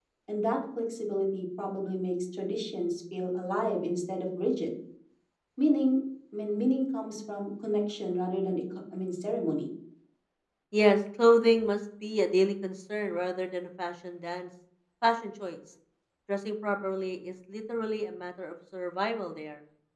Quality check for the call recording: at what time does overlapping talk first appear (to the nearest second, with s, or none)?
none